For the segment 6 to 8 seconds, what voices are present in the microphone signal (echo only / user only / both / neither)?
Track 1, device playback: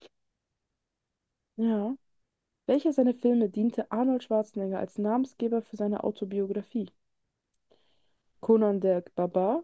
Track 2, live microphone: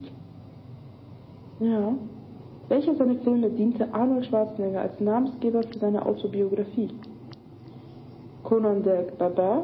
echo only